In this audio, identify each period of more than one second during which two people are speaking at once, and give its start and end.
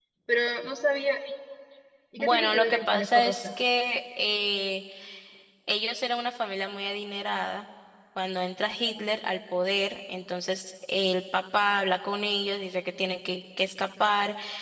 2.2-3.5

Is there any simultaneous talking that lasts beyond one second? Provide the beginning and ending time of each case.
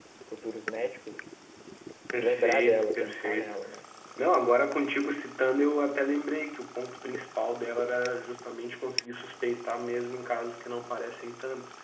2.2-3.6

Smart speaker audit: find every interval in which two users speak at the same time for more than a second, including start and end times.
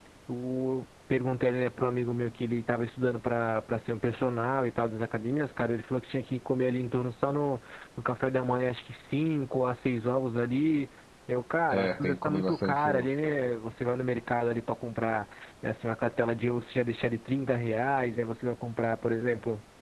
11.7-13.1

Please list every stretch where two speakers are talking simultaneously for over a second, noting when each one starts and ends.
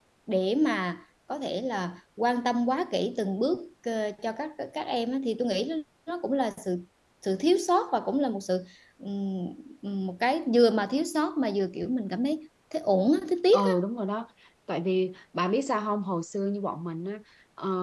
none

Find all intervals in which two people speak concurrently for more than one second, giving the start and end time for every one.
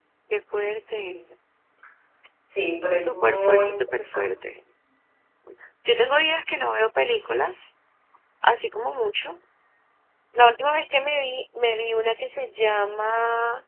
3.0-4.3

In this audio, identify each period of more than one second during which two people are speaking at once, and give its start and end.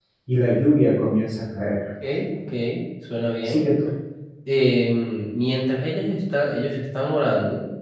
none

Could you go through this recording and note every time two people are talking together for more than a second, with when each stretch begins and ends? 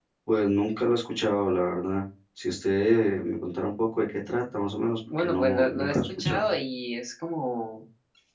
5.2-6.5

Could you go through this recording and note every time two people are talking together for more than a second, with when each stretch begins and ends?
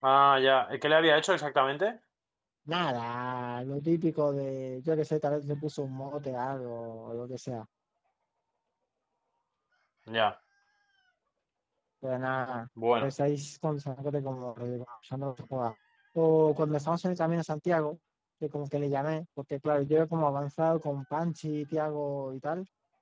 none

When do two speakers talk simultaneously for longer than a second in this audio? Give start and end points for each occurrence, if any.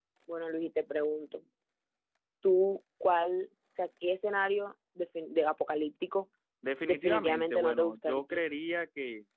6.8-8.4

